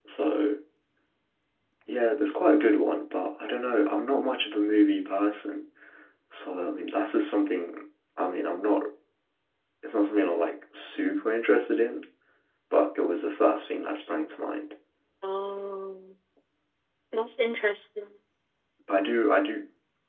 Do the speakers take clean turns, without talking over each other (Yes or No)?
Yes